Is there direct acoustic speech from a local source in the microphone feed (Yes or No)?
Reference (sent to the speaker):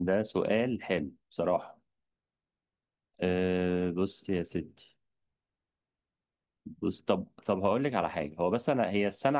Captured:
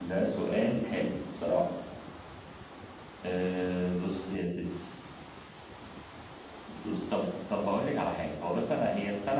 No